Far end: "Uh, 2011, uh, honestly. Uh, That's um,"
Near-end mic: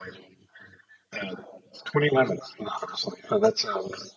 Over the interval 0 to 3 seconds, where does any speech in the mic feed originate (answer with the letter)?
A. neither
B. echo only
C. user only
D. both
B